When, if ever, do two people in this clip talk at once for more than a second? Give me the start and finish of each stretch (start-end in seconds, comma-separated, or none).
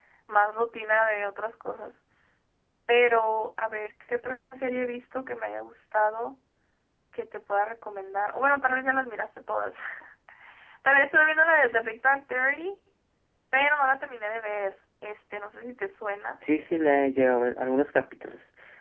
none